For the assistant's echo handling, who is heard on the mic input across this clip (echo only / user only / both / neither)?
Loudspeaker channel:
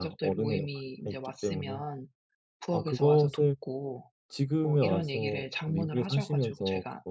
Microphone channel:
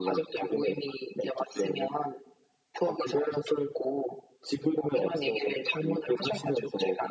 echo only